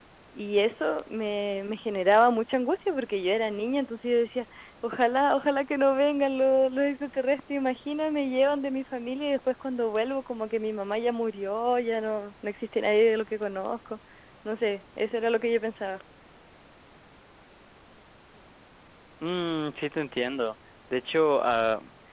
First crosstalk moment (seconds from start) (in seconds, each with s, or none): none